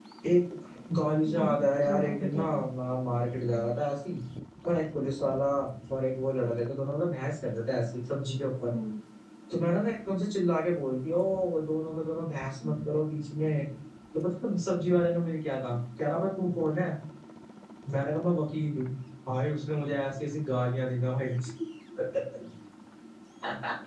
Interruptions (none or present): present